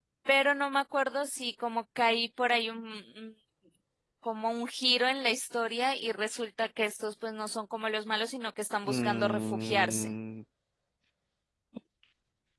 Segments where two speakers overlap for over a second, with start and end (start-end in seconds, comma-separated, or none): 8.9-10.1